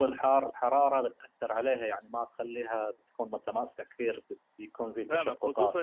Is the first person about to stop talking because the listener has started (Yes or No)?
Yes